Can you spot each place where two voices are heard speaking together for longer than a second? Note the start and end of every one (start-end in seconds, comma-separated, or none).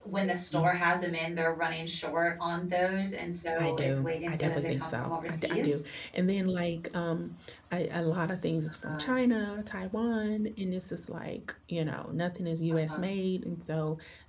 3.6-5.8